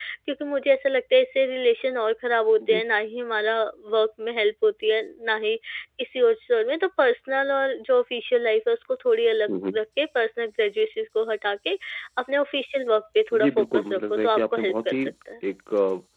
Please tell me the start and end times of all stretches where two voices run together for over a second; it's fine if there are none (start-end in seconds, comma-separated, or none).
13.3-15.0